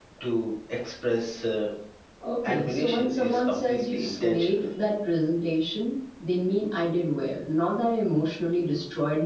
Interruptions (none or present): present